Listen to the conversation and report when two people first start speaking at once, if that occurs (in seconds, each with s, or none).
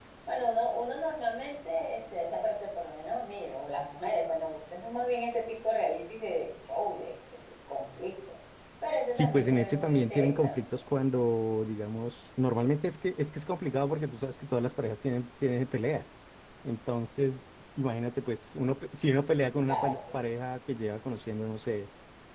9.1 s